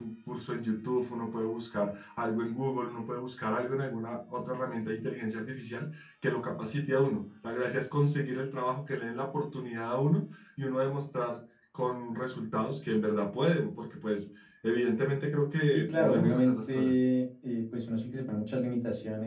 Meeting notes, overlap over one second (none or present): present